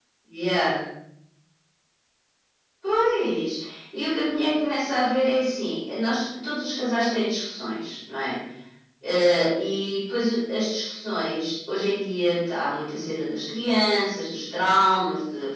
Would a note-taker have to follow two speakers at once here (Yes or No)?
No